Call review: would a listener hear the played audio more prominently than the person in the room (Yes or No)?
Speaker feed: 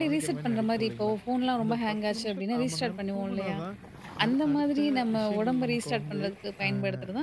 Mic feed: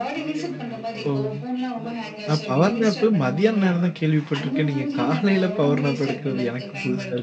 No